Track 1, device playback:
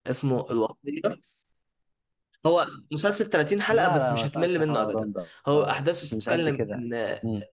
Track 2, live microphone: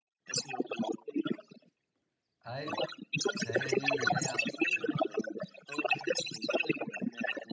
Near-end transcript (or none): ايوه فهي دي جايه اصلا في الفيلم